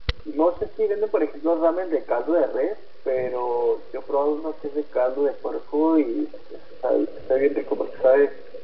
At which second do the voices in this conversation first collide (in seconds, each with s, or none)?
none